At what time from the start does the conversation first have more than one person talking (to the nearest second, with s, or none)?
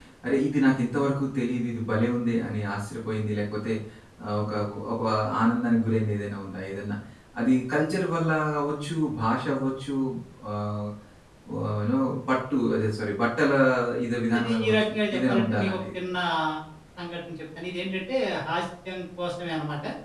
14 s